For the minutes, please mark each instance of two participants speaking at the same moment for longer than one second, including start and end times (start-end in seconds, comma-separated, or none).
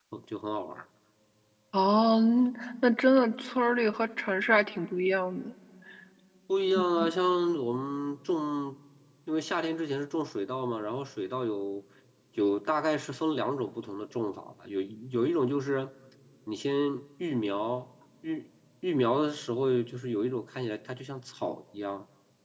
none